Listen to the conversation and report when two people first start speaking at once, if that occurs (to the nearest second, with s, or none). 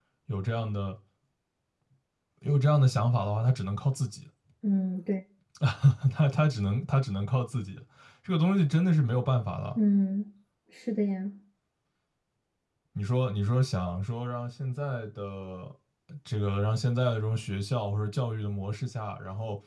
none